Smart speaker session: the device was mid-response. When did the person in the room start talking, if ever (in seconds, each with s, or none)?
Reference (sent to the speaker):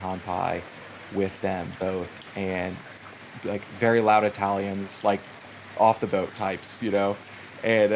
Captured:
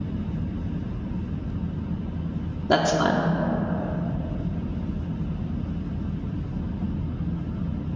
2.7 s